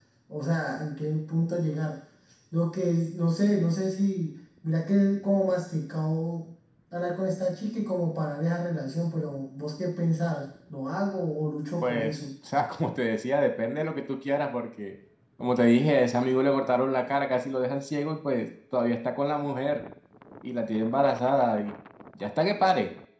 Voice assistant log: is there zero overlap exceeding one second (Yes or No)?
Yes